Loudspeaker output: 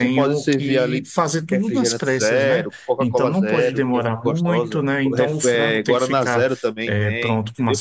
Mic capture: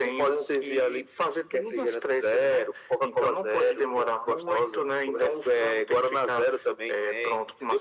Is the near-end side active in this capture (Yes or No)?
No